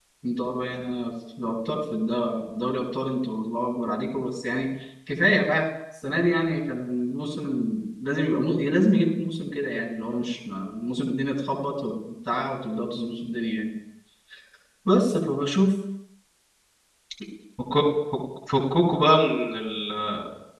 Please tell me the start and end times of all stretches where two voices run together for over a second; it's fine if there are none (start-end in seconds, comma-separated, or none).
none